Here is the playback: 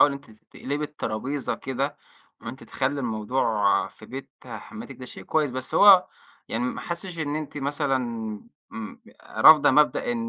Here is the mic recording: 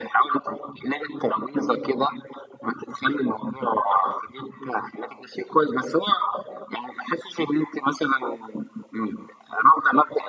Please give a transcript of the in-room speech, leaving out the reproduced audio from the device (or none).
none